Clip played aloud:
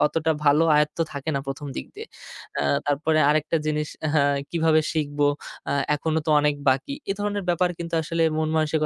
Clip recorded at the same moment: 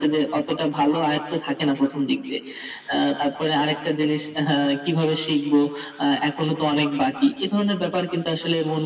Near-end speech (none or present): none